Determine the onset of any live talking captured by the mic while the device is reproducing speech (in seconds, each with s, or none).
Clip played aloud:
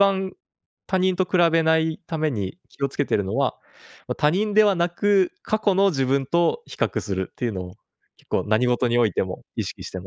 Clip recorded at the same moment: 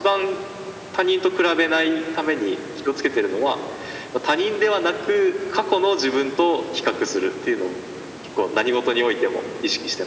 none